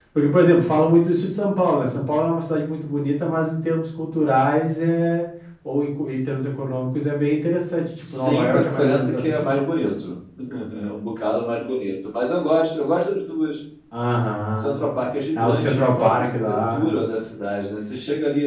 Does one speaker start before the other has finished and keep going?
Yes, from 8.1 s

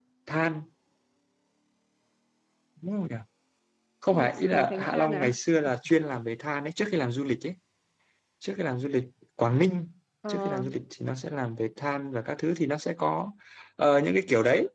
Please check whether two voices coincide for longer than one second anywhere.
Yes, from 4.1 s

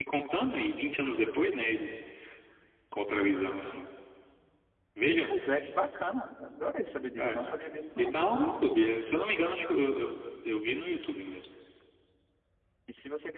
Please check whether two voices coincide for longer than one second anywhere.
No

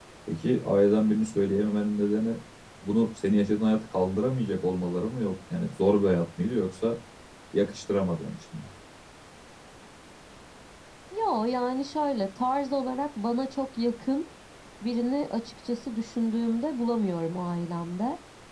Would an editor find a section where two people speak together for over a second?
No

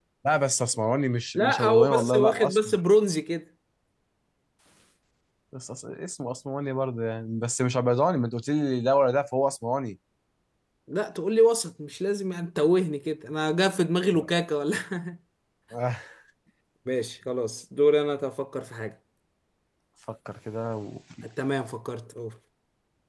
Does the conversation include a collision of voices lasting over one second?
Yes, from 1.4 s

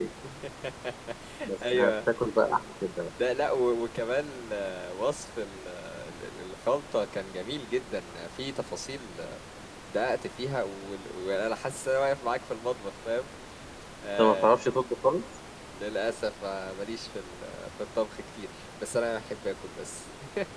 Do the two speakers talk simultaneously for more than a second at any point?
No

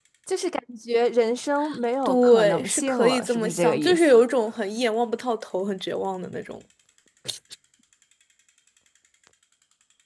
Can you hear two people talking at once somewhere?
Yes, from 2.0 s

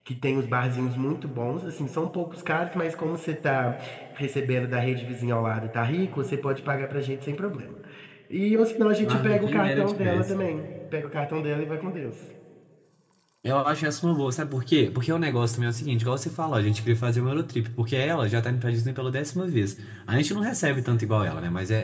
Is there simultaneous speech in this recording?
Yes, from 9.1 s

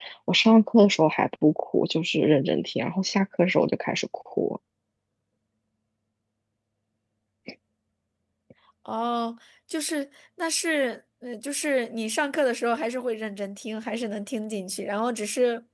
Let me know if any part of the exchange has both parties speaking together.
No

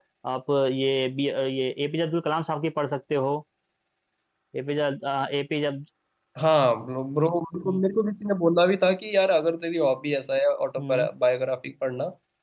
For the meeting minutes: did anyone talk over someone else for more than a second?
No

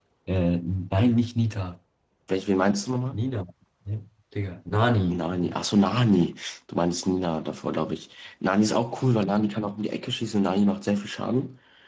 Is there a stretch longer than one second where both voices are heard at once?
No

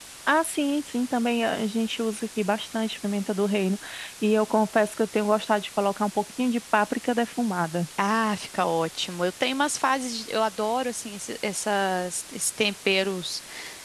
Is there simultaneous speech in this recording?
No

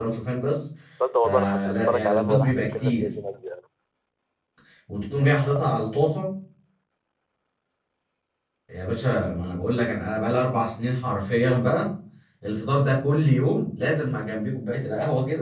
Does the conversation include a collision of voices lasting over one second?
Yes, from 1.2 s

